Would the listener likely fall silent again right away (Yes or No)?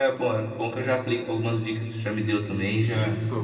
No